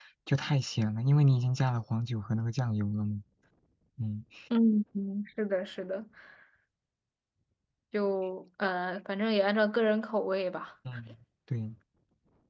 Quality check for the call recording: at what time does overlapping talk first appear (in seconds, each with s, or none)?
none